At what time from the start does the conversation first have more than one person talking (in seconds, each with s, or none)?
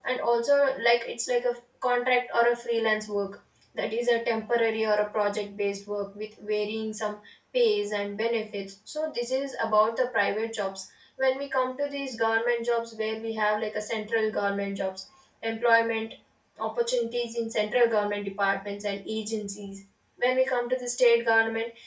none